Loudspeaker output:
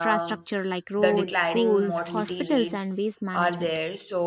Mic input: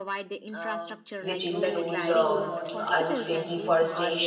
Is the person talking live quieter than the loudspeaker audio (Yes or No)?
No